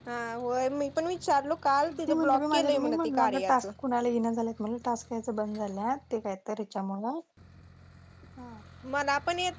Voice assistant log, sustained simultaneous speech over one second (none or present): present